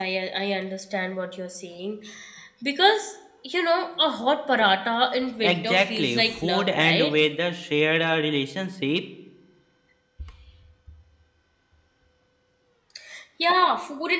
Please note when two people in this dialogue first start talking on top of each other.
5.4 s

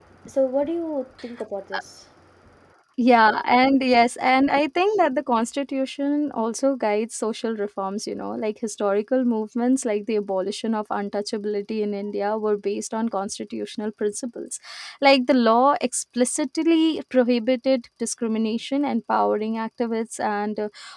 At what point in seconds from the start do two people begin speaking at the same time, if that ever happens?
none

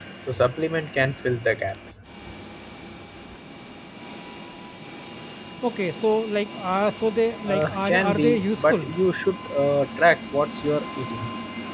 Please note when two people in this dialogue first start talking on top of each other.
7.5 s

